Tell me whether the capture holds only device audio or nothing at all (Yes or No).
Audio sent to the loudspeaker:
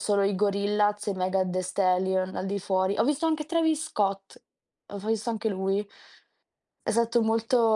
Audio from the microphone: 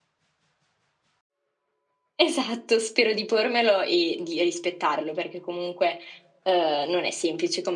No